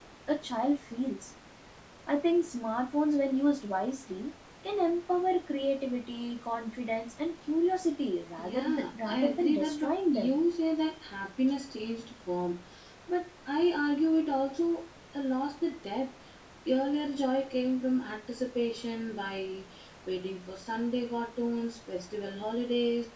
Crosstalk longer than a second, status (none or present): present